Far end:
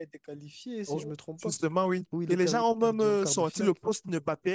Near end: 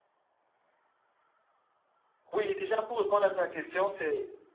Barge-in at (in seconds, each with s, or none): 2.3 s